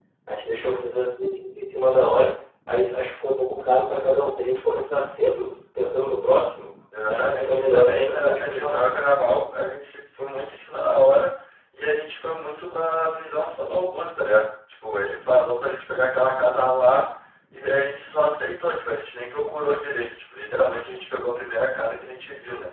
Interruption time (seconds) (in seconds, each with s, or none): 6.9 s